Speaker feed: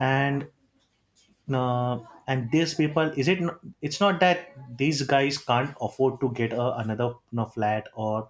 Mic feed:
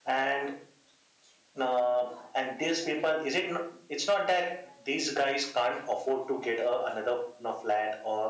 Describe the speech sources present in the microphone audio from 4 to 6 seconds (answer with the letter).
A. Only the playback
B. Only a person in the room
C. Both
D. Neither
A